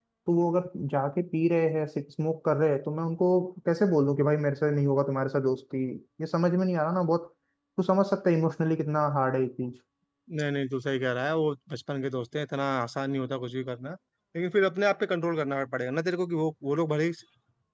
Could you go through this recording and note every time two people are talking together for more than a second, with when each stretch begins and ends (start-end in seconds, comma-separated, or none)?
none